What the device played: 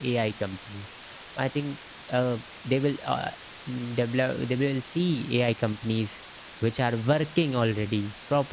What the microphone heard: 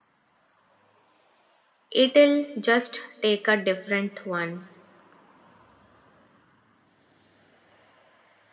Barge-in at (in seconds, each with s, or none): 1.9 s